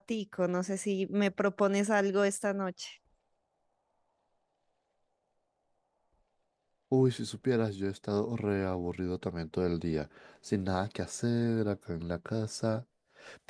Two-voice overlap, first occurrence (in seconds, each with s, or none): none